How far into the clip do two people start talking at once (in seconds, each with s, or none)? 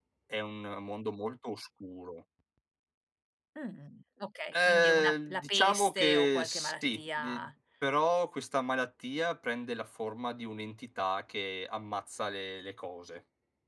4.5 s